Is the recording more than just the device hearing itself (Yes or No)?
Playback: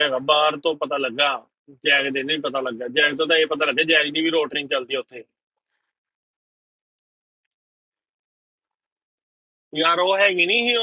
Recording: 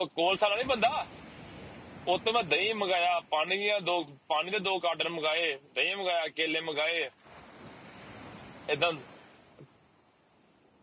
Yes